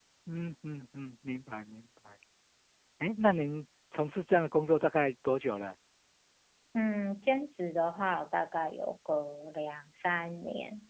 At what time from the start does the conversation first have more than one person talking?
none

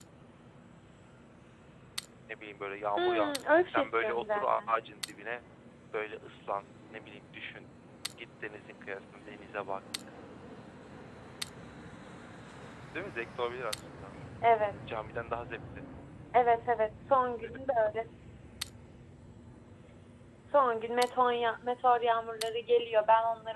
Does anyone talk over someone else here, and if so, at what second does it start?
3 s

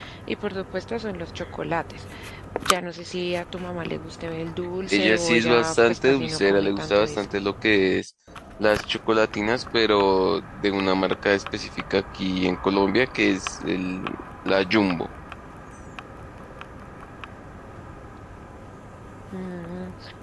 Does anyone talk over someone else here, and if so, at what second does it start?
5 s

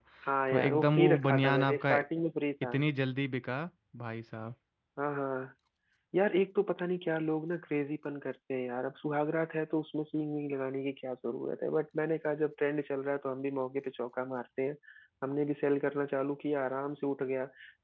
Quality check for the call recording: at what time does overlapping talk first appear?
1 s

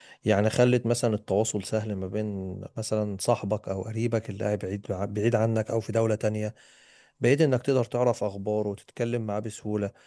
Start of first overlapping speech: none

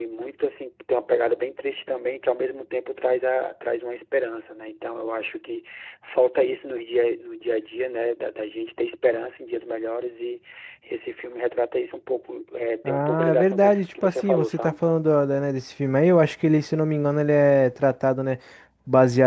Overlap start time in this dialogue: 13 s

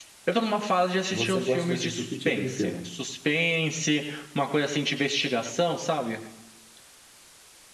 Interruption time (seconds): 1 s

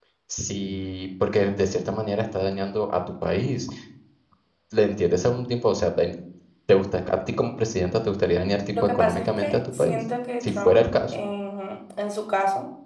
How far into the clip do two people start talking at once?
9 s

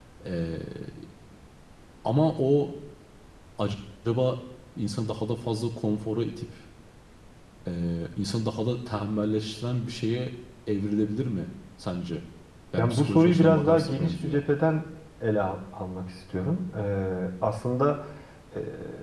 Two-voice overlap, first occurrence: 13 s

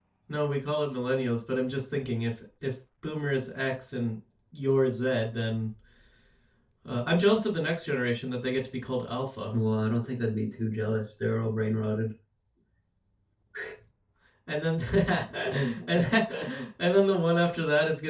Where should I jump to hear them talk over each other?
none

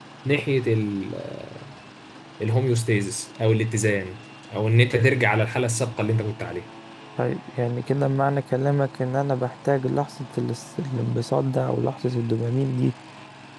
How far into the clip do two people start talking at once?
none

